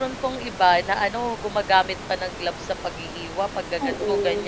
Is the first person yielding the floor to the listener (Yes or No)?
No